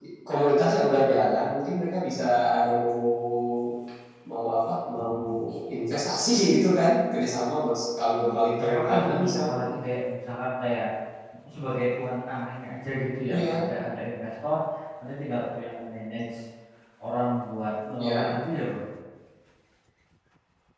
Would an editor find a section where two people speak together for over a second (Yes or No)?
Yes